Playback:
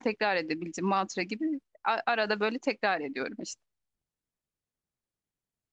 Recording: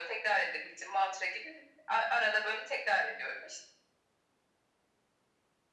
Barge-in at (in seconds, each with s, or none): none